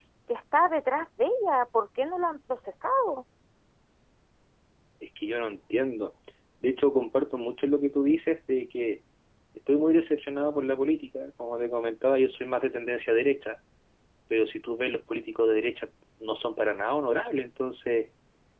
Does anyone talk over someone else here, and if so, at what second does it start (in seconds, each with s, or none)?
none